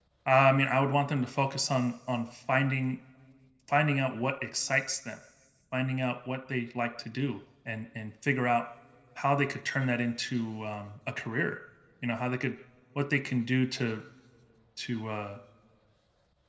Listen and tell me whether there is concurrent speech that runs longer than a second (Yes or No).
No